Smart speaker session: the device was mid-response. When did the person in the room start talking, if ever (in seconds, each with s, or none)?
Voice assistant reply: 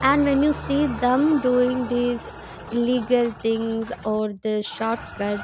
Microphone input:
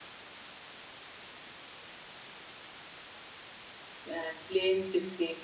4.1 s